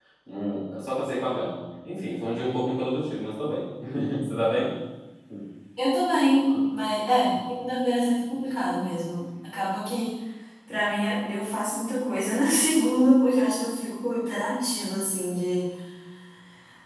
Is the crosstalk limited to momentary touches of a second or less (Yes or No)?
Yes